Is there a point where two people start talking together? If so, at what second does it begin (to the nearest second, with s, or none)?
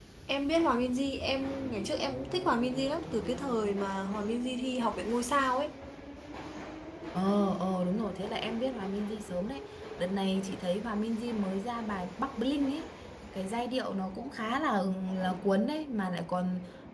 none